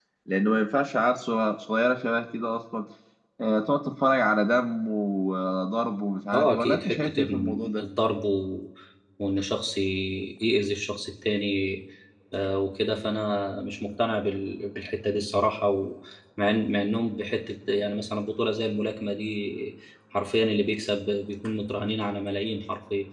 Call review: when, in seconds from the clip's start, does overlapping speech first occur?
6.3 s

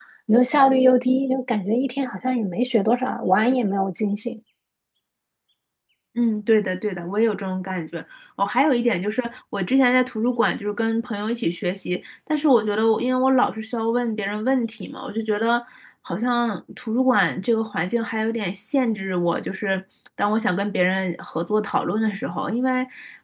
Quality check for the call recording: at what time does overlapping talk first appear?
none

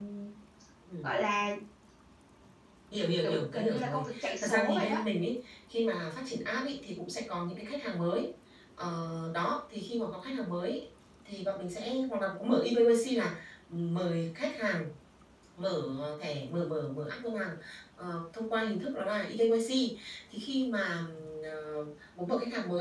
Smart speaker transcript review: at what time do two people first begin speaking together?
3.2 s

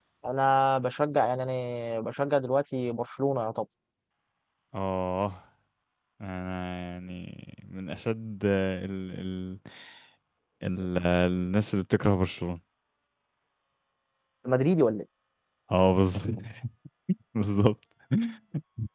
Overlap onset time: none

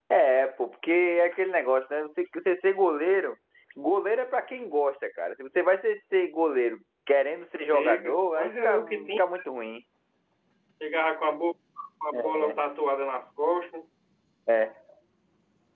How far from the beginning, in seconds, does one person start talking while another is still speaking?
7.7 s

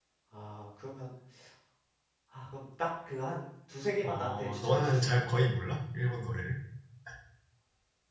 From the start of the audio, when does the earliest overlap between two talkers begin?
4.0 s

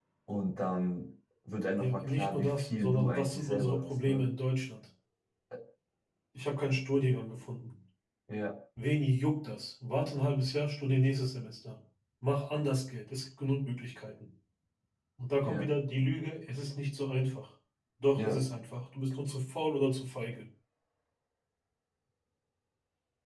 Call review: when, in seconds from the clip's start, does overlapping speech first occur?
1.8 s

